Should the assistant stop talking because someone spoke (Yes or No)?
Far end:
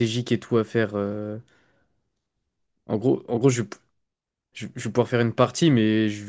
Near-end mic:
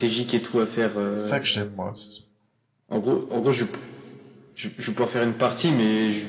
Yes